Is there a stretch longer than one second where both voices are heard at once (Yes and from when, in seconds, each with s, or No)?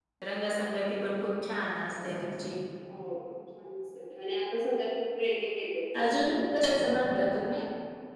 No